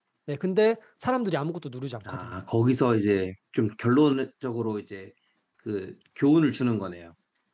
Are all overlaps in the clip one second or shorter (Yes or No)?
Yes